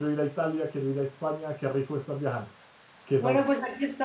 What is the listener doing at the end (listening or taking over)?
taking over